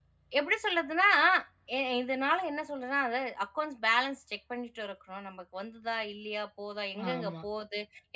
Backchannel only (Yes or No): Yes